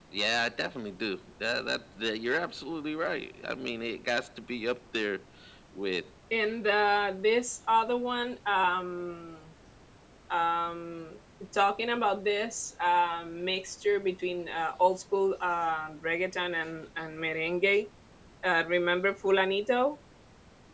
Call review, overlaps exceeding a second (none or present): none